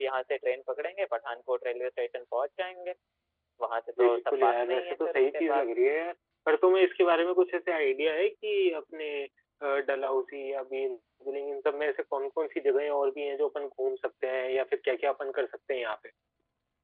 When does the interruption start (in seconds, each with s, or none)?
4.0 s